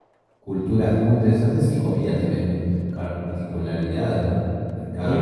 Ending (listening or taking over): taking over